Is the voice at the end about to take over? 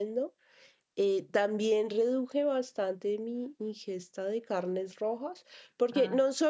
No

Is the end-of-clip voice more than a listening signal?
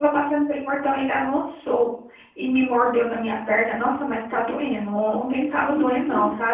No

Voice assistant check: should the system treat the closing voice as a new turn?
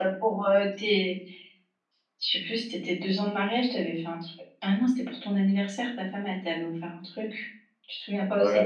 Yes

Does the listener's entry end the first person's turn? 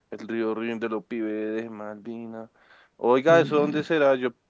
No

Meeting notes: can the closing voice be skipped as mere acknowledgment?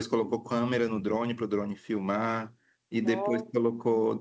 Yes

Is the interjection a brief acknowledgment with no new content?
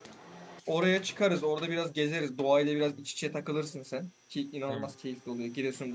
Yes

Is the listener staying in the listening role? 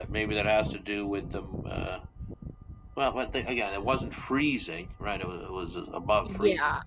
Yes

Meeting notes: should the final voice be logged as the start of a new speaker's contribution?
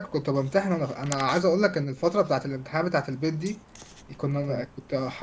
No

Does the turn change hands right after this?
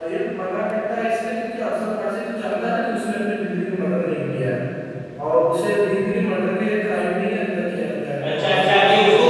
Yes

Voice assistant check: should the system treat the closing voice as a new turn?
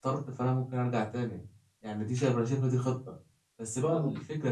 No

